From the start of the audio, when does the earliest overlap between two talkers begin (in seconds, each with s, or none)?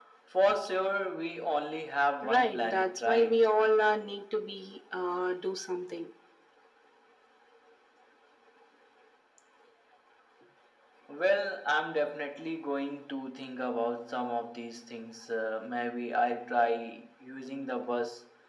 2.2 s